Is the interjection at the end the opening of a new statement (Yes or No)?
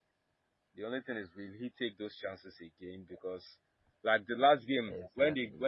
No